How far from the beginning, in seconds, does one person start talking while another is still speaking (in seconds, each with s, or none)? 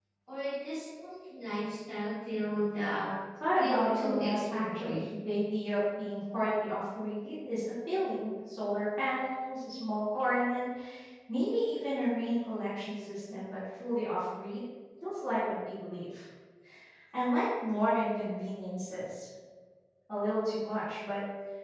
3.6 s